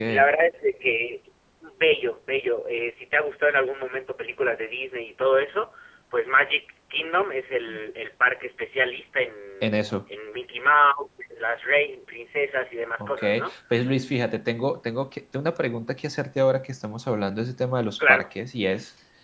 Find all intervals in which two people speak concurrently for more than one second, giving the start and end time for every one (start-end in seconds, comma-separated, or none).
none